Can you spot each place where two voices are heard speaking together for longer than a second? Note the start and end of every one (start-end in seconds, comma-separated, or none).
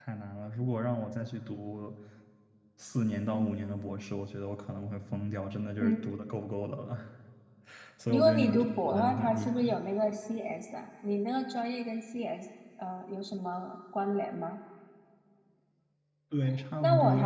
8.1-9.8